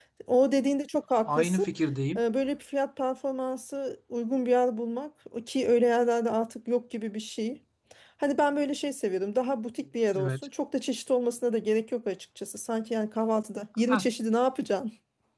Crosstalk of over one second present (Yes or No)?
No